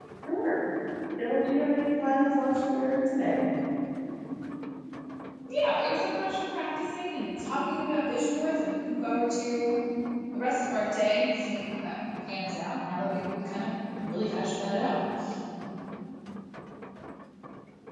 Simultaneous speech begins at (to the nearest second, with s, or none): none